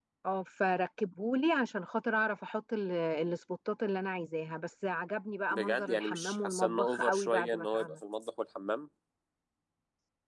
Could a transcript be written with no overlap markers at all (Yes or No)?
No